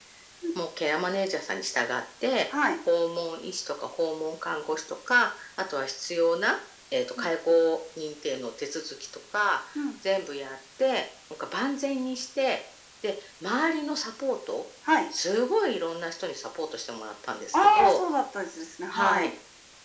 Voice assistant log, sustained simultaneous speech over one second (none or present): none